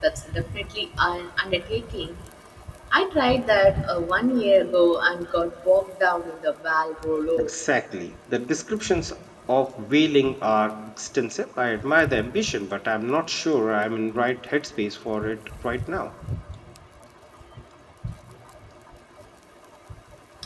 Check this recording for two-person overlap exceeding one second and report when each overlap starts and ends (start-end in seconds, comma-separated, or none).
none